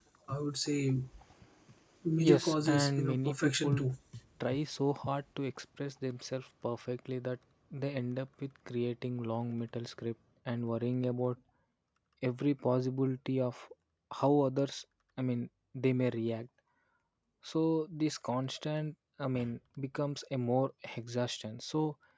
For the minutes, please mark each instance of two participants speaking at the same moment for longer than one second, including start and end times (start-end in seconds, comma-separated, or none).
2.2-3.8